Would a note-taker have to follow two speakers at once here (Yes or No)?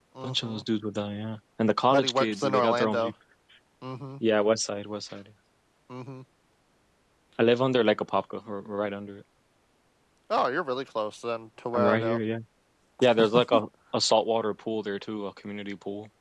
Yes